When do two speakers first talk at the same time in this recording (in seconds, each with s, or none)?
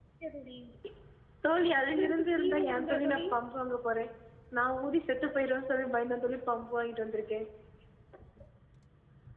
1.8 s